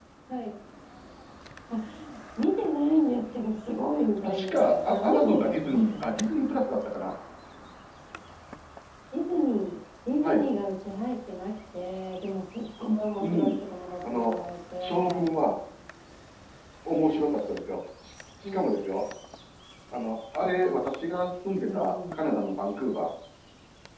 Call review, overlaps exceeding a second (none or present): present